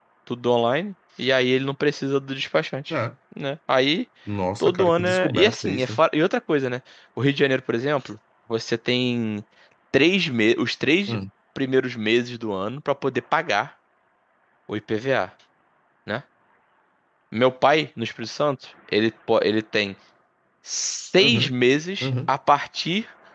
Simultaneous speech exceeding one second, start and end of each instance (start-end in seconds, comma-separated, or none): 4.6-6.0